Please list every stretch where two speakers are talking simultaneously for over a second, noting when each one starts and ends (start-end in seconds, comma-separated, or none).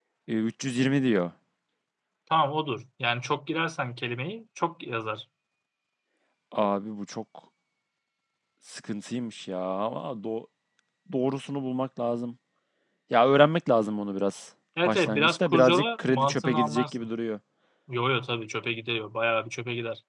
14.8-17.1